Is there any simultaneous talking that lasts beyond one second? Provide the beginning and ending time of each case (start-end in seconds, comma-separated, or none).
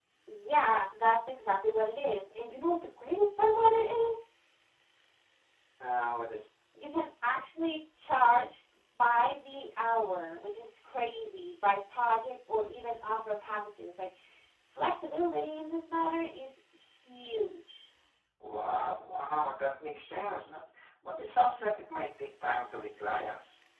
none